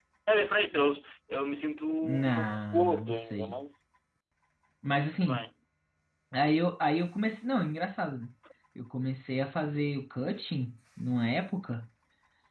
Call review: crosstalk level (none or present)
present